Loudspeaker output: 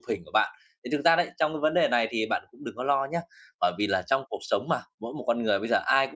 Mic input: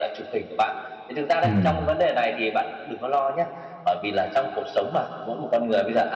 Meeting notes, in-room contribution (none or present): present